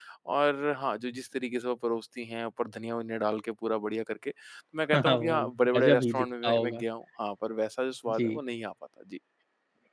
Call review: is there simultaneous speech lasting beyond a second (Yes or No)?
Yes